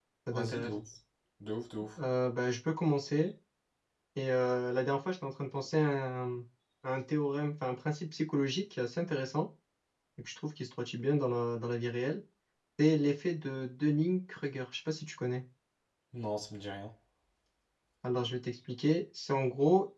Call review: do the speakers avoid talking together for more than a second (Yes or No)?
Yes